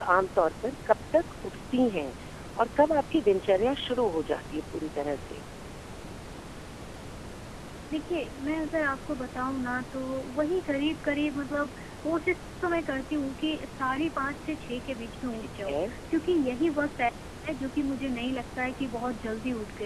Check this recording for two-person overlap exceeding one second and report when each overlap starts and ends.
none

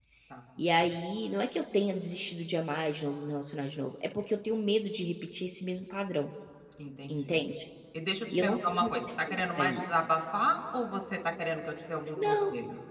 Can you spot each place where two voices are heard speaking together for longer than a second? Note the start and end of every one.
8.4-9.9

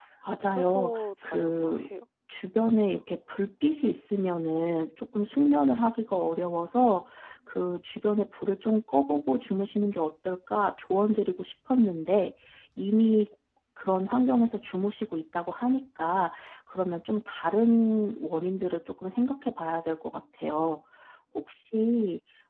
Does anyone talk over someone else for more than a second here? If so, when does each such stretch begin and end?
0.5-1.8

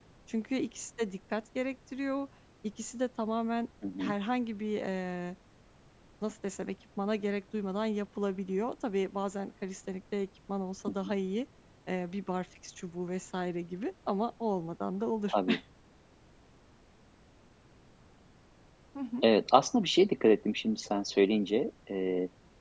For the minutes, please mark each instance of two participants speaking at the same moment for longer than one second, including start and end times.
none

